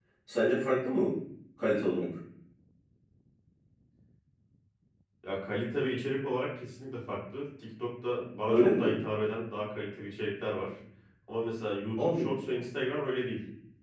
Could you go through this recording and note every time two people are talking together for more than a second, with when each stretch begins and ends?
none

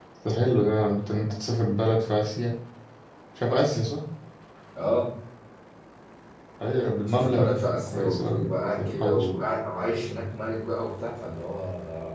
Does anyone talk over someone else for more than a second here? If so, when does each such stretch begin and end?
7.1-9.3

